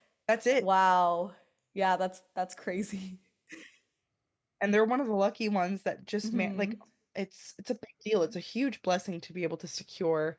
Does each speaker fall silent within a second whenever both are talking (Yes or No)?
Yes